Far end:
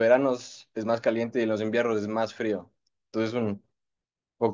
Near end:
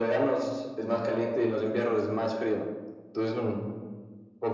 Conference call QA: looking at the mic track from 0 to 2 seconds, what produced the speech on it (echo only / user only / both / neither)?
echo only